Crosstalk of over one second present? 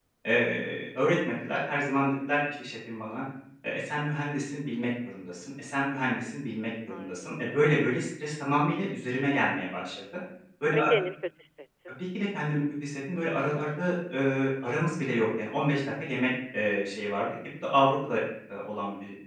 No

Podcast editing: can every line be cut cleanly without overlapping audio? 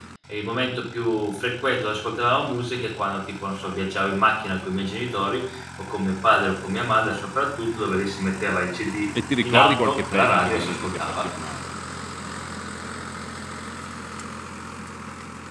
No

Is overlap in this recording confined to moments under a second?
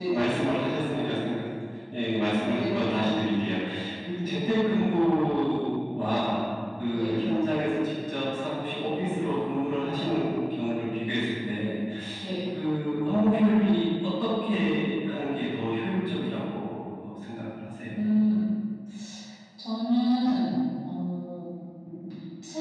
Yes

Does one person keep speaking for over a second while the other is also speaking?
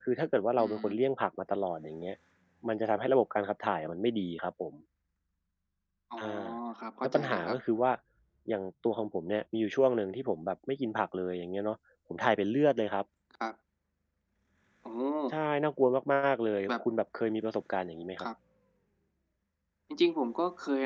No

